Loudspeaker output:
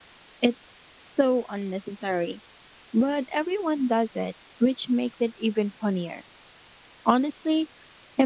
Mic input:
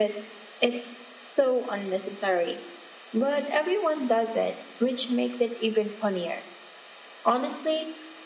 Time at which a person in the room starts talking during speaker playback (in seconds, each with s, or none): none